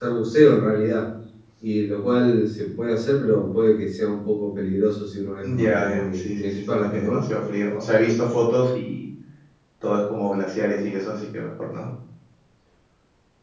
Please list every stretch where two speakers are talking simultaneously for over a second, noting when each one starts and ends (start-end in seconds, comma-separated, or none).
5.4-7.3